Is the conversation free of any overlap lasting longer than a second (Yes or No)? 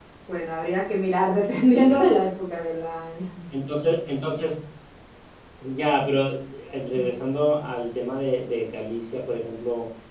Yes